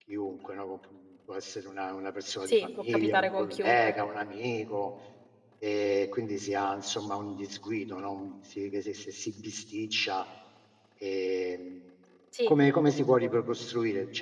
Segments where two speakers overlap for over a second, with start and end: 2.5-3.9

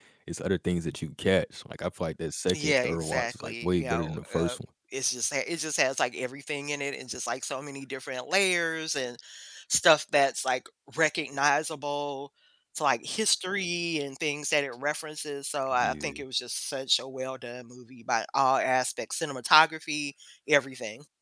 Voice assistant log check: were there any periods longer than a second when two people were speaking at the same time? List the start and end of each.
2.5-4.6

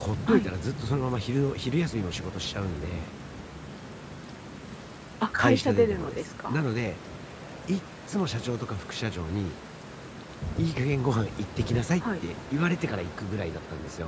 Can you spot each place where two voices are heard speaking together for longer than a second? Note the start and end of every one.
5.4-6.6

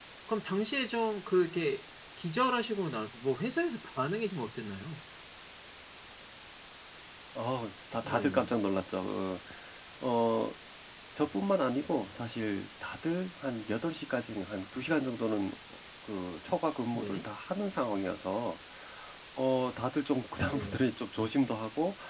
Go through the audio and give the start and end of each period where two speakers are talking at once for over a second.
none

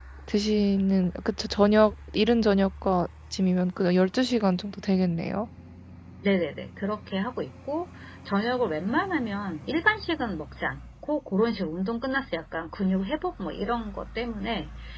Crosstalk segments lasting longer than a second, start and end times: none

